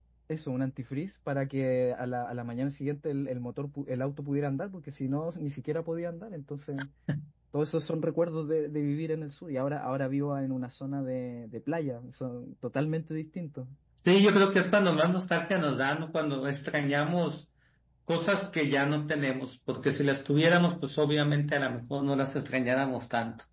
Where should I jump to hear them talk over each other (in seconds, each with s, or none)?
none